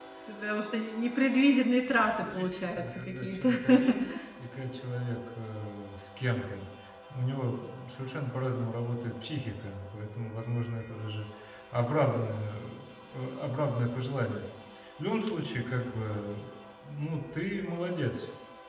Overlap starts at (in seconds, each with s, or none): 2.2 s